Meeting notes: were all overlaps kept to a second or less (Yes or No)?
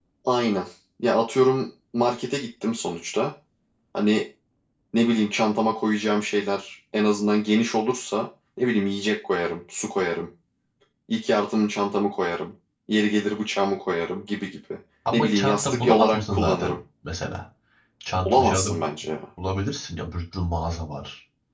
No